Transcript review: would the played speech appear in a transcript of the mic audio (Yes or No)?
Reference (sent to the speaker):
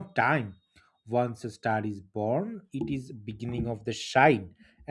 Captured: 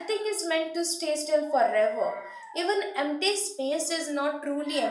No